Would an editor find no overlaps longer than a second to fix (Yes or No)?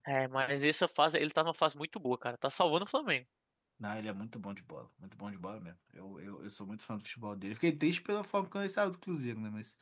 Yes